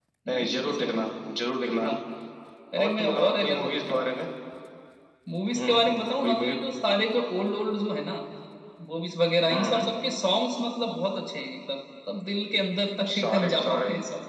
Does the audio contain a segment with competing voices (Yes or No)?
Yes